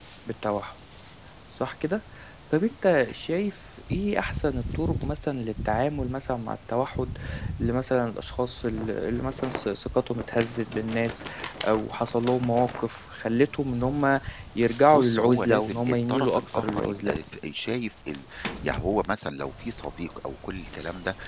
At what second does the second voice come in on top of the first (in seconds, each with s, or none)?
14.9 s